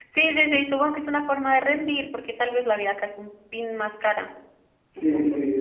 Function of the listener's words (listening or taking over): taking over